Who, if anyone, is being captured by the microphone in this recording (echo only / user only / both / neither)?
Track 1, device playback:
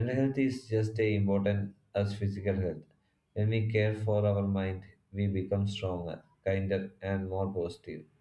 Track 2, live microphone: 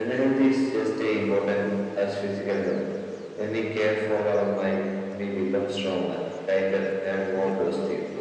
both